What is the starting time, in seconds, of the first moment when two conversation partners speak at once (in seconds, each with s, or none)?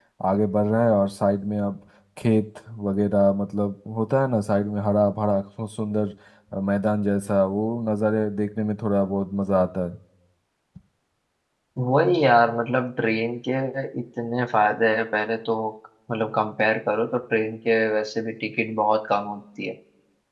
none